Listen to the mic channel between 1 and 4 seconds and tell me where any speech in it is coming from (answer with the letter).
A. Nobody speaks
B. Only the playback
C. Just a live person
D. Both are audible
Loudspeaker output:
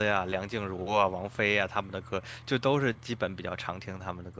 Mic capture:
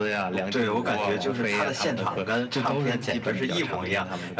D